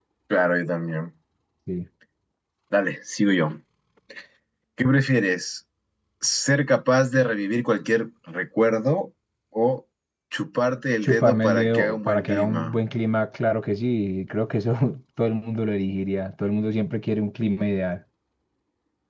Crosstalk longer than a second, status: present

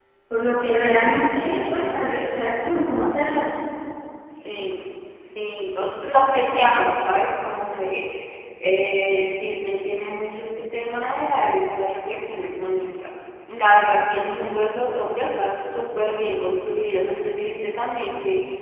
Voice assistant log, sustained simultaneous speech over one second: none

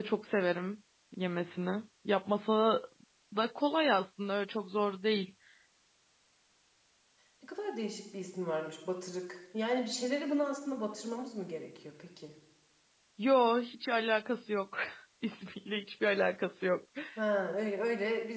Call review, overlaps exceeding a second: none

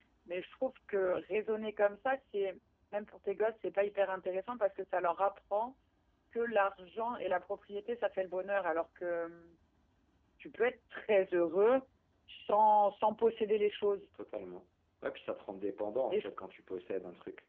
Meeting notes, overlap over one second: none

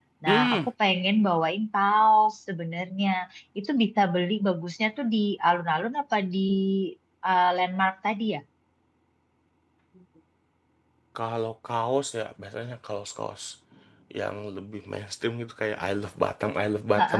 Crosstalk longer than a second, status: none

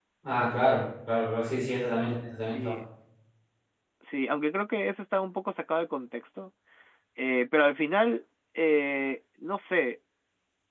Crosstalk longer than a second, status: none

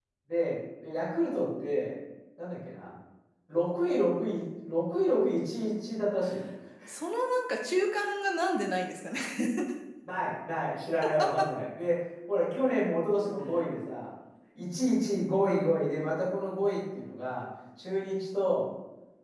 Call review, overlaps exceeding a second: none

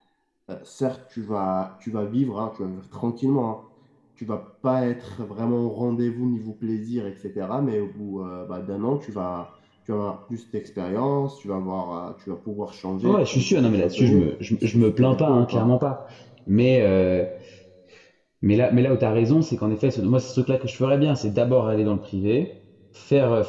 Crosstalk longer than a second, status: present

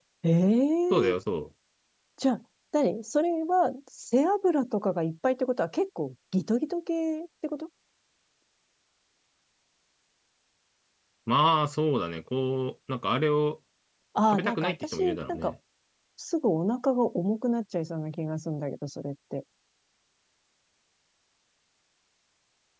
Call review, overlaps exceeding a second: present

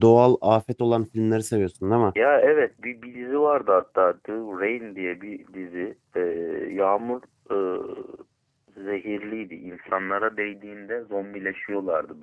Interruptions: none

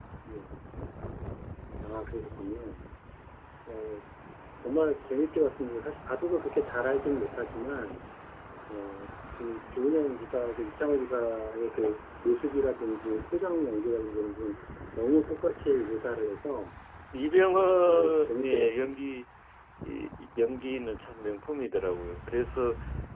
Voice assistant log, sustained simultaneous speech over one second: present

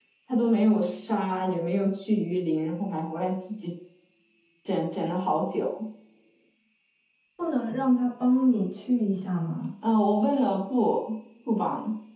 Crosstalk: none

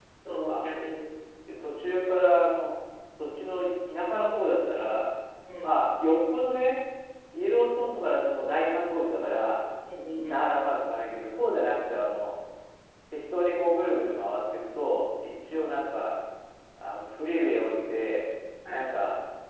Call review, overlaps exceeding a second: none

